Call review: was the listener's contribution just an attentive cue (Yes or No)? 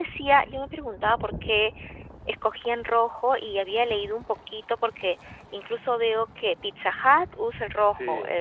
Yes